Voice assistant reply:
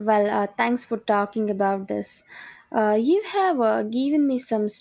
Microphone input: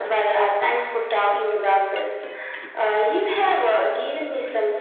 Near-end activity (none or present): none